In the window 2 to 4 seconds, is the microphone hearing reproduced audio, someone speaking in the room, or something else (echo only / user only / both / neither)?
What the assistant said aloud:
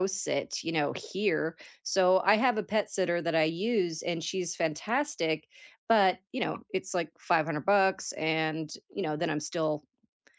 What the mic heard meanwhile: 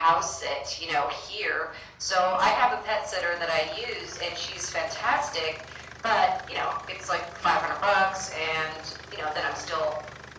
echo only